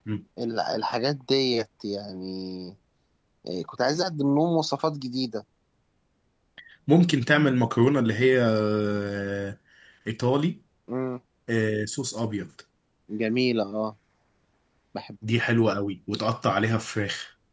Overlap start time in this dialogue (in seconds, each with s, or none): none